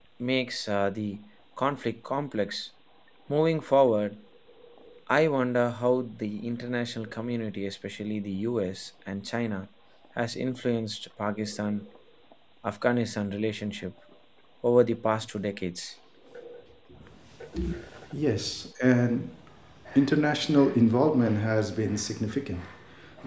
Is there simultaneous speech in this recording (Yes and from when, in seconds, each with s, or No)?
No